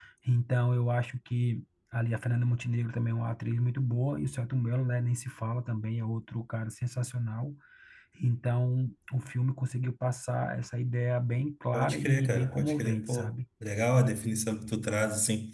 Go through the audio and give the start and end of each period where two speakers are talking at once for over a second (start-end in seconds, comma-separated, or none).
11.7-13.3